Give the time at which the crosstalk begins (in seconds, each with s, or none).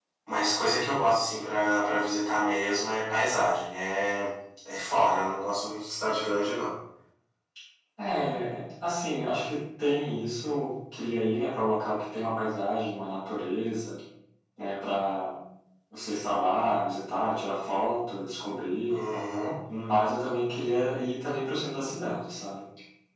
none